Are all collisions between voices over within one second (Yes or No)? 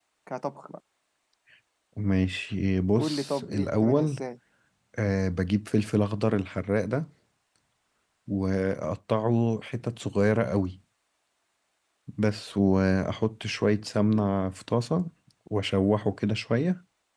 No